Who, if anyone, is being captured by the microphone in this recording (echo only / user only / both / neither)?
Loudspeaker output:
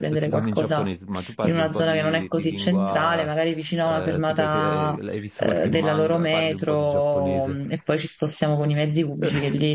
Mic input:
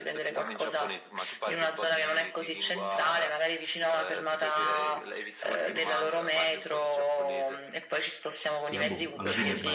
both